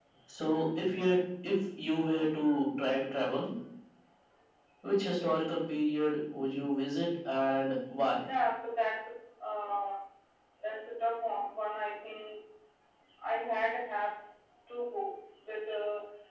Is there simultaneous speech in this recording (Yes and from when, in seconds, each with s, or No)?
No